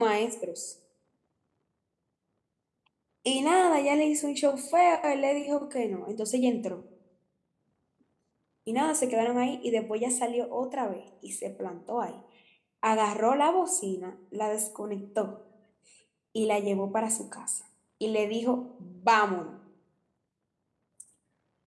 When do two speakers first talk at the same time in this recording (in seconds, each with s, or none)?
none